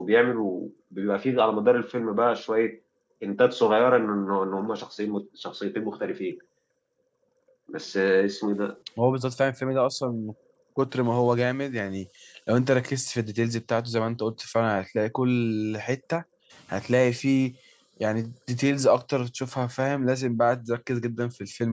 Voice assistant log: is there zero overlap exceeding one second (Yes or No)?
Yes